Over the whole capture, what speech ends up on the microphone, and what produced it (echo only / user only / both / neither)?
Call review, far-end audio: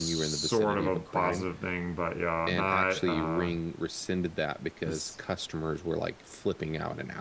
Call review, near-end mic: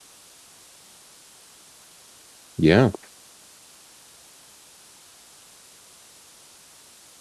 user only